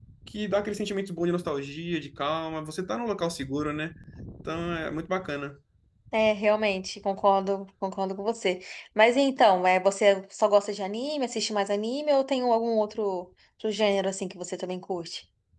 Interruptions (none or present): none